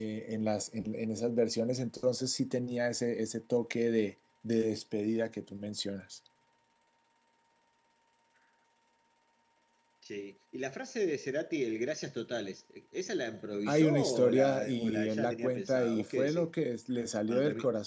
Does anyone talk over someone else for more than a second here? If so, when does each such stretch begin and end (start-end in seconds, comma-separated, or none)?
13.7-16.5